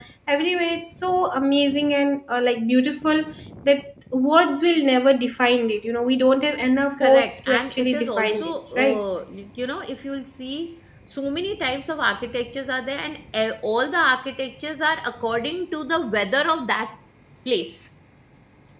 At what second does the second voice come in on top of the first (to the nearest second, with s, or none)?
7 s